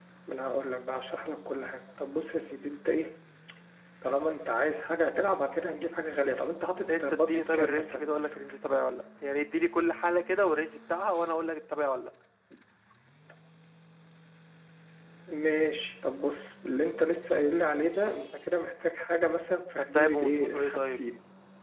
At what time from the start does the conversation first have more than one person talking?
7.0 s

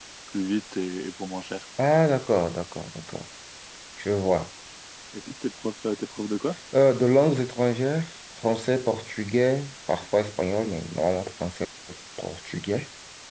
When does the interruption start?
none

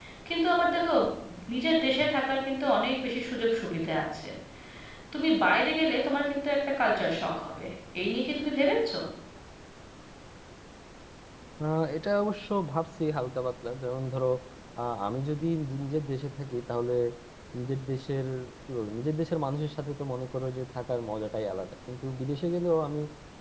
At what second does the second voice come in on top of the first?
none

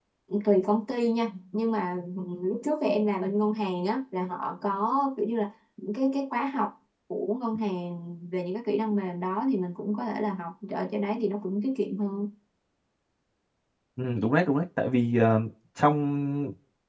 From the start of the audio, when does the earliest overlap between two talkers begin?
none

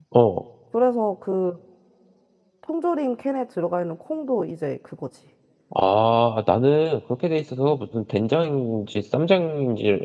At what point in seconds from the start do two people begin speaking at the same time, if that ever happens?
none

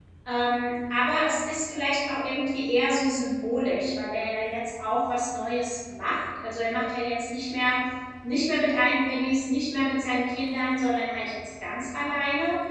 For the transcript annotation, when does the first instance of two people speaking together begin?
none

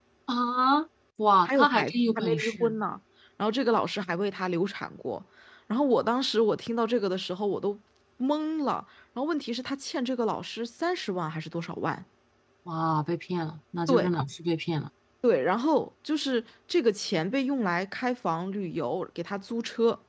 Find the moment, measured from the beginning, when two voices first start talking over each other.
1.4 s

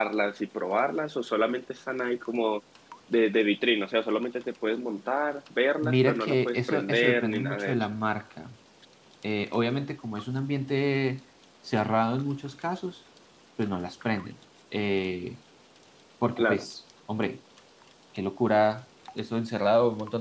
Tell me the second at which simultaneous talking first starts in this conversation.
5.8 s

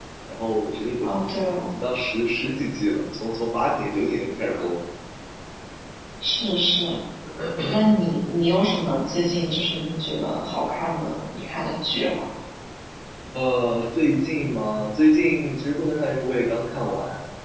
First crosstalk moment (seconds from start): none

